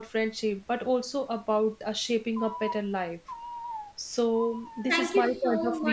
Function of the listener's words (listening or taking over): taking over